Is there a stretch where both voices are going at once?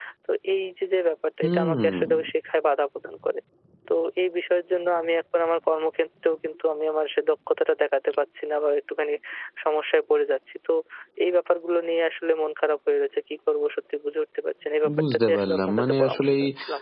Yes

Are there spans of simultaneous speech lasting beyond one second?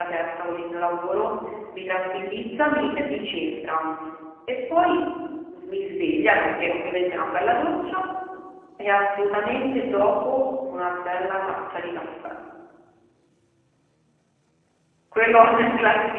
No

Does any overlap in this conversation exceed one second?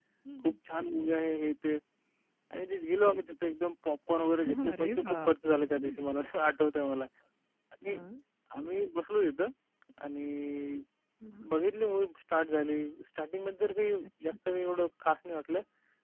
Yes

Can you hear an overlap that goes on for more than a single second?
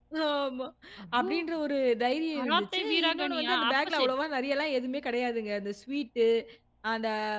Yes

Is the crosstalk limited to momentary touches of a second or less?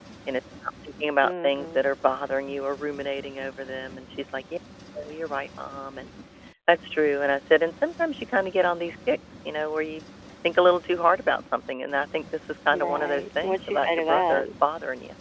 No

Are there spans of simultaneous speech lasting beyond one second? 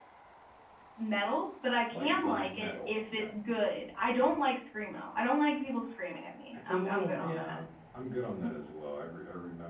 Yes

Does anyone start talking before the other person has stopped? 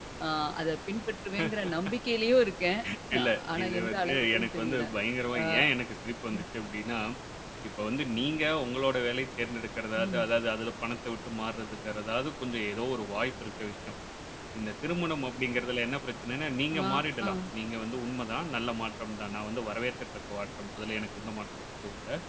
Yes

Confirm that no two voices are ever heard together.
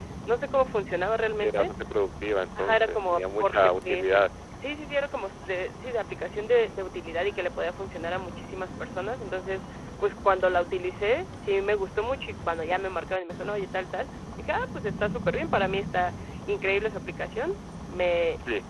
No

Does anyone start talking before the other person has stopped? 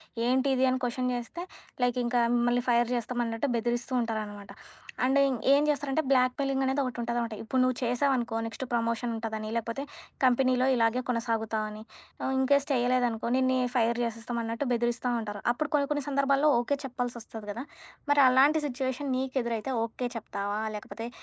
No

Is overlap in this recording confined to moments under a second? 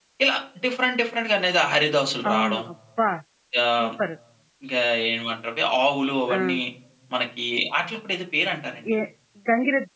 Yes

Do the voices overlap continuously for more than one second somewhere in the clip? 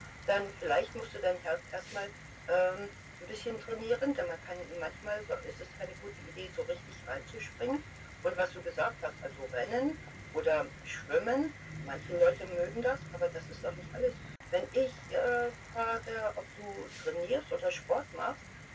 No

